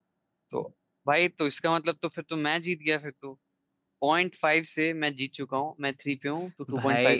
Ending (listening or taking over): taking over